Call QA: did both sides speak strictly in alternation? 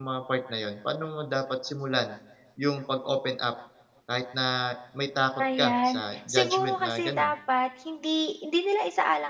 No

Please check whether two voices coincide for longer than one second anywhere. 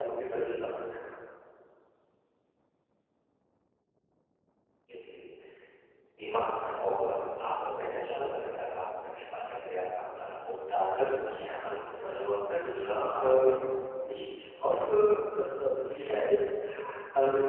Yes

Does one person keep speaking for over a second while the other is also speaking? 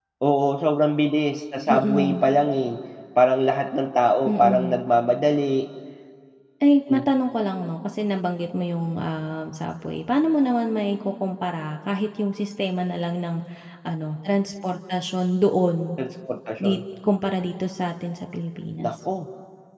No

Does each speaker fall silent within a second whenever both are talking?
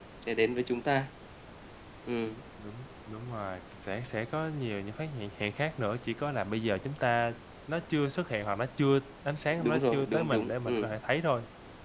No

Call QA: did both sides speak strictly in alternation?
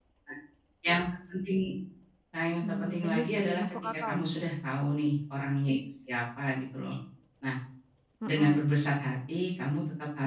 No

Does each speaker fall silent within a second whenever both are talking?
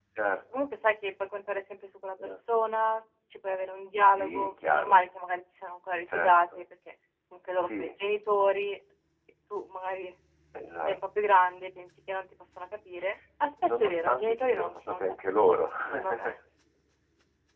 No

